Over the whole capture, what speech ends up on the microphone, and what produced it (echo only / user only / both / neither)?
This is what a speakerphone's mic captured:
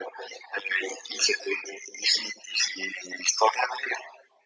echo only